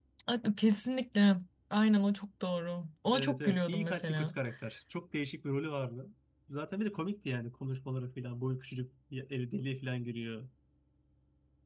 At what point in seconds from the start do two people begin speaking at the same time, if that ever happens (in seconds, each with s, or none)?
3.1 s